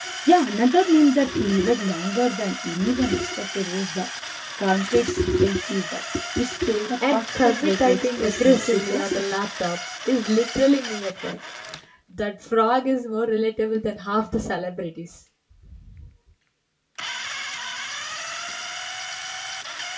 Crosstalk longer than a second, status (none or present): present